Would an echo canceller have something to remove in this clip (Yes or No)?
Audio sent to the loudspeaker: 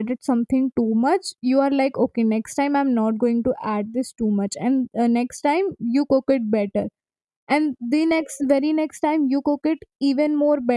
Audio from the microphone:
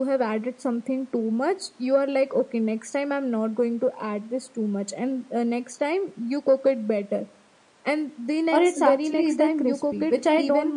Yes